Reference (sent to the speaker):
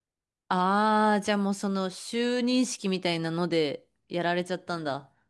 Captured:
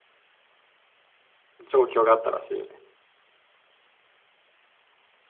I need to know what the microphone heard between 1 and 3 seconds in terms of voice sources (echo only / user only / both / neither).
user only